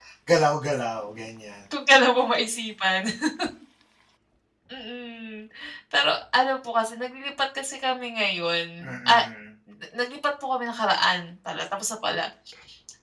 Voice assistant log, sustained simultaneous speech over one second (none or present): none